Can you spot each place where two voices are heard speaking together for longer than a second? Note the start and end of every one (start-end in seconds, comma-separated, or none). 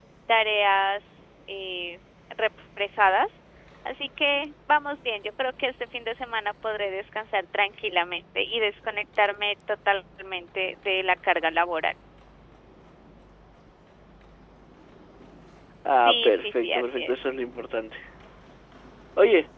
15.9-17.2